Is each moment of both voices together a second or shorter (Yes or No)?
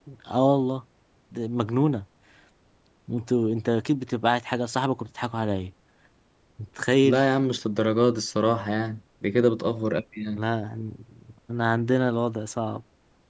Yes